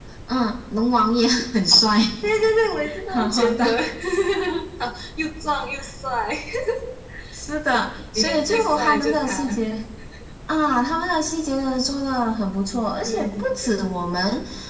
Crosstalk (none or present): present